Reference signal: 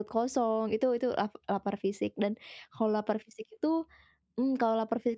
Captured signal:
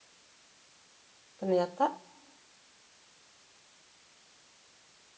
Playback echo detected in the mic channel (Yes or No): No